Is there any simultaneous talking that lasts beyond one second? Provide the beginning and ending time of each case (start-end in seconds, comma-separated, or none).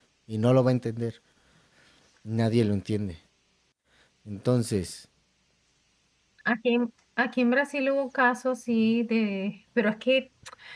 none